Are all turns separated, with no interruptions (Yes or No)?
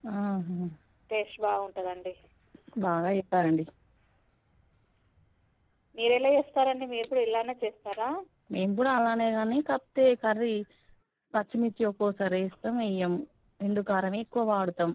Yes